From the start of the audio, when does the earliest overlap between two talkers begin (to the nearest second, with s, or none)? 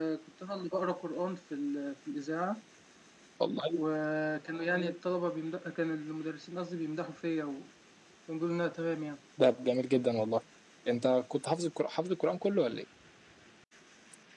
none